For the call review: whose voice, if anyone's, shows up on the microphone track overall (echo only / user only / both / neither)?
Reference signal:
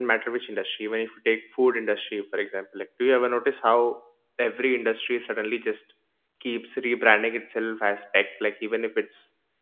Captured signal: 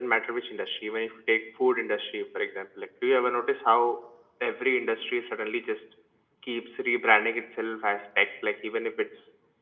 echo only